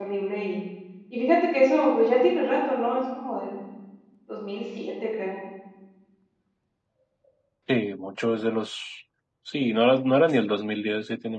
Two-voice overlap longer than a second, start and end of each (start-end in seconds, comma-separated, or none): none